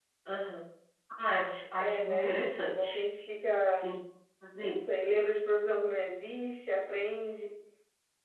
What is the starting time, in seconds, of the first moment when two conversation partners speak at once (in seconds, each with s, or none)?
1.8 s